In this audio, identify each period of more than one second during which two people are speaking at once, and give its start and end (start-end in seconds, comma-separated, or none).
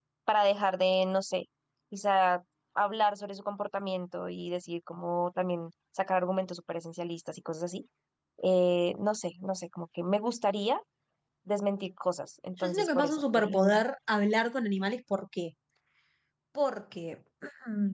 12.6-13.8